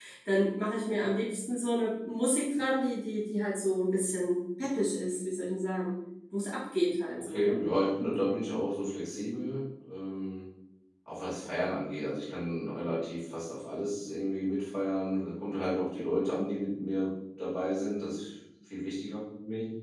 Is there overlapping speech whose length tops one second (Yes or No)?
No